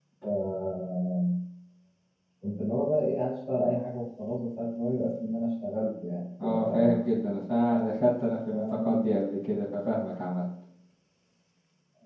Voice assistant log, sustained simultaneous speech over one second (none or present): none